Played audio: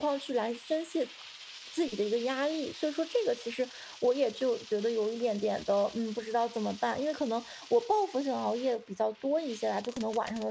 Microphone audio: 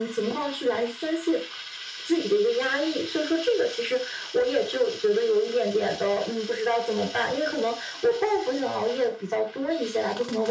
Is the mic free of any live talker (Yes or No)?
Yes